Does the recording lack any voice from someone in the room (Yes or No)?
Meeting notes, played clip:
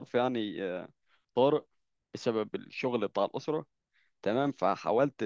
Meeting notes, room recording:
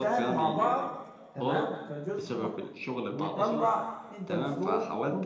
No